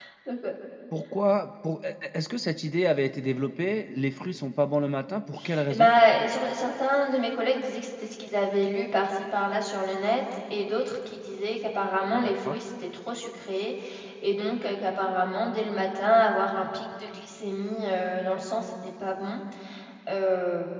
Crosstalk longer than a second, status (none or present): none